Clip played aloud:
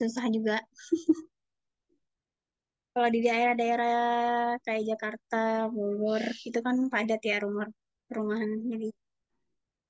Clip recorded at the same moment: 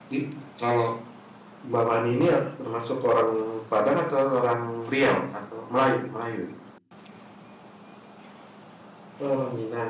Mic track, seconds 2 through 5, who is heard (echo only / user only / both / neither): user only